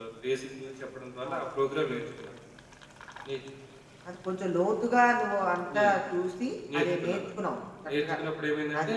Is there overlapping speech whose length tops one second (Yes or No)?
No